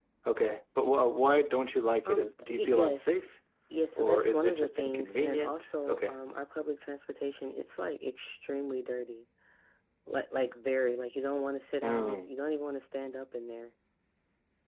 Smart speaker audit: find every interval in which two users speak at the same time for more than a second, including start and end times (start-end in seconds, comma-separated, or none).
2.0-3.3, 3.9-6.1